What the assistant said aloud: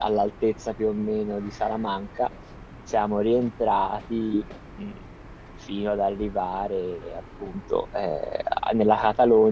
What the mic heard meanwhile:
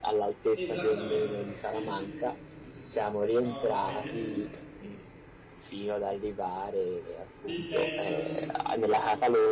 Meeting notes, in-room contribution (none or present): present